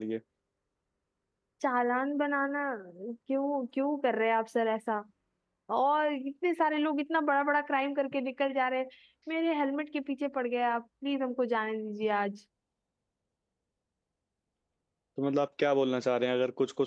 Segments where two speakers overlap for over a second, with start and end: none

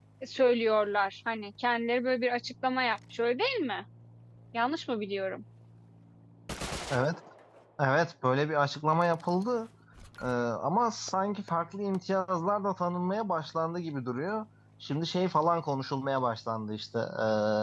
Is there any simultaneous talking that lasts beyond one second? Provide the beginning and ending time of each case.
none

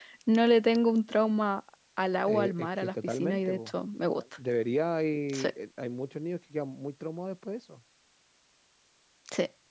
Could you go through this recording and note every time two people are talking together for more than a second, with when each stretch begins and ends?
2.3-3.7

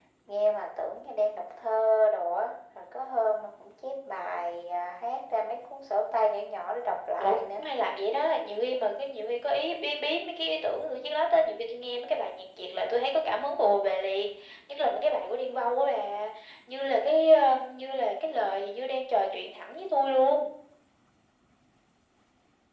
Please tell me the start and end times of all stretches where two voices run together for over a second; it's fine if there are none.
none

